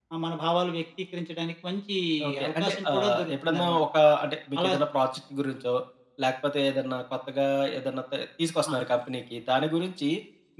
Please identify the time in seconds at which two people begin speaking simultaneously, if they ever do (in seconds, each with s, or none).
2.4 s